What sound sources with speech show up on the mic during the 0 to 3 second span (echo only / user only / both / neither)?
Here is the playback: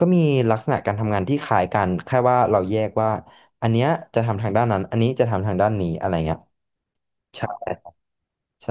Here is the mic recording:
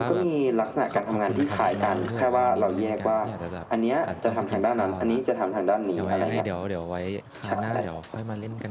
both